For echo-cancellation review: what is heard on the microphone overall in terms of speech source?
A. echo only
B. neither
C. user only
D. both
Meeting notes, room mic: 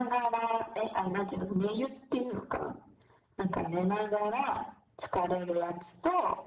A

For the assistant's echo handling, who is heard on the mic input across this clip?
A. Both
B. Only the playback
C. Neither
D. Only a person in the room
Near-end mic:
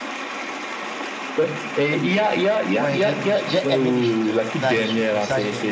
A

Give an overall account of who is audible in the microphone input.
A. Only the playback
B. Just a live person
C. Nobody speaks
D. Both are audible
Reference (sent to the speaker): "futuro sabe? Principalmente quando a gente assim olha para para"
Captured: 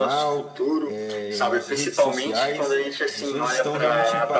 D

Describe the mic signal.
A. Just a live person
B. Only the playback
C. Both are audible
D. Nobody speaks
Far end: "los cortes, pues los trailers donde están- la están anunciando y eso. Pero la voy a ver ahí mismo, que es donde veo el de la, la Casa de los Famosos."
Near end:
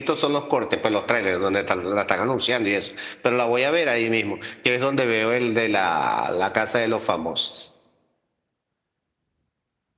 B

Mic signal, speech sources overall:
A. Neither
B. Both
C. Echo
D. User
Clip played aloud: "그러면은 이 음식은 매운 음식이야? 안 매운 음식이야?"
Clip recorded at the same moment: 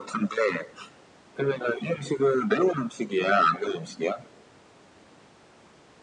C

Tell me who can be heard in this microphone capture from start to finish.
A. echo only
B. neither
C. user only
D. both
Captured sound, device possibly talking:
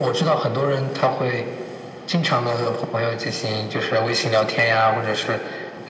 A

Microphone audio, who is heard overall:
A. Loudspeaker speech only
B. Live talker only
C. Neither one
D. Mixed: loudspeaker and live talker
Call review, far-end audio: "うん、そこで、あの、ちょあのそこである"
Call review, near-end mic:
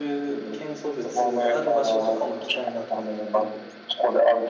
D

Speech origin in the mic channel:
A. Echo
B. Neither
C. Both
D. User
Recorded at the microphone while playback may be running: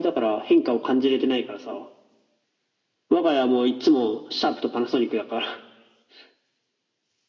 A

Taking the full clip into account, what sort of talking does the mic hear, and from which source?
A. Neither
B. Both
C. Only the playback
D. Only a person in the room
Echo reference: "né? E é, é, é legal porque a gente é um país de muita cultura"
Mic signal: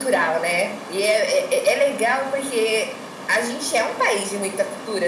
C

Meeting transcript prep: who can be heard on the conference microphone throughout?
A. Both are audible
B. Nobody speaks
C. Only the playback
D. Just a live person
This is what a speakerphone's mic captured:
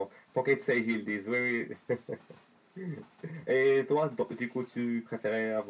C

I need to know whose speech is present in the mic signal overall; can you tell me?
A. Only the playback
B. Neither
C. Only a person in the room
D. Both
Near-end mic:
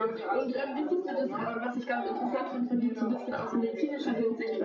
A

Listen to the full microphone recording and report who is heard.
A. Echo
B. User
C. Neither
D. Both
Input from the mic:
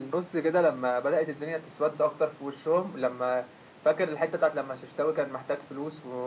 A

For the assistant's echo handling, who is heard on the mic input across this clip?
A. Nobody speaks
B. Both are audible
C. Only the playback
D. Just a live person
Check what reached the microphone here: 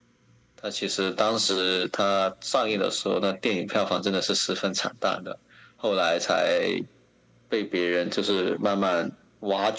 C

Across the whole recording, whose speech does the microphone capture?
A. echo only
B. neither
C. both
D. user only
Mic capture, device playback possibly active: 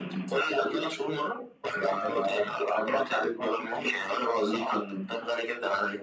C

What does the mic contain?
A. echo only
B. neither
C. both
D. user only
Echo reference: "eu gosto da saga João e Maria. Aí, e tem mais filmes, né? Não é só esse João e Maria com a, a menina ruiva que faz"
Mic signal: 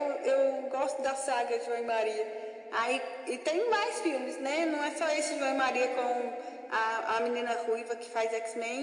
A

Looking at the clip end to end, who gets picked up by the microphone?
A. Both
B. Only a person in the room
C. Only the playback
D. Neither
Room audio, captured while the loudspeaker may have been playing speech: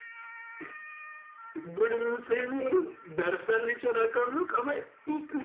C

